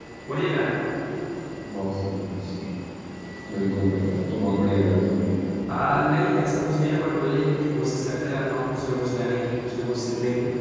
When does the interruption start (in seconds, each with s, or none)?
none